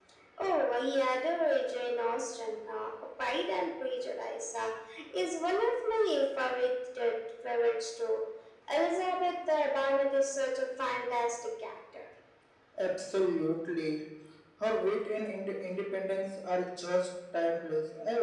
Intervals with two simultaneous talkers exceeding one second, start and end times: none

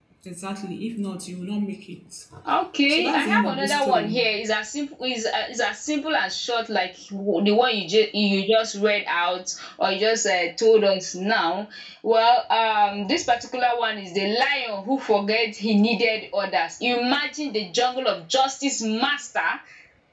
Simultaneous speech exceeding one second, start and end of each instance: 2.9-4.2

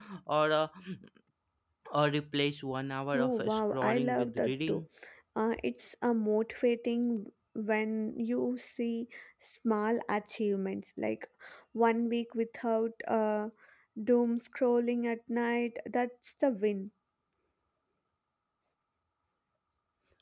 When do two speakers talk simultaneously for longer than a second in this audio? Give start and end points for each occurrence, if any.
3.1-4.8

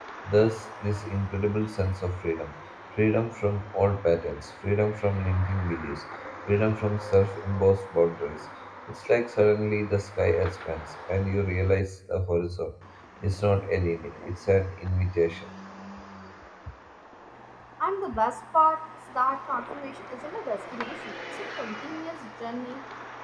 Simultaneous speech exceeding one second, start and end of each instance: none

